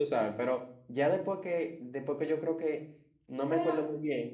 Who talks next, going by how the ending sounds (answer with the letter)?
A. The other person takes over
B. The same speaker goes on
B